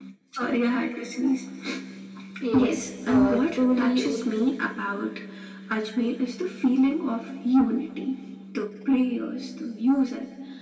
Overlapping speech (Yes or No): Yes